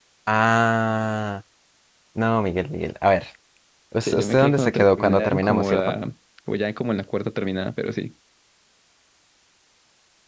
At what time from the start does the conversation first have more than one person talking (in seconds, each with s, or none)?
4.0 s